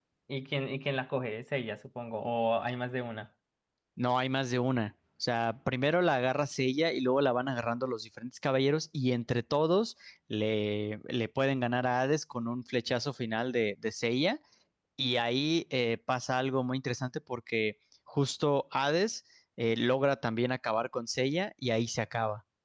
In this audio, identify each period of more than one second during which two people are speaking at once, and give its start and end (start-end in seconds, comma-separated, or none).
none